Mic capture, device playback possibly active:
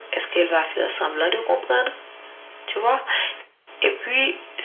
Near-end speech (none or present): none